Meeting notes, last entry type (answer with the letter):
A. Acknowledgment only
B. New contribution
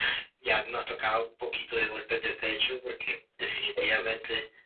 A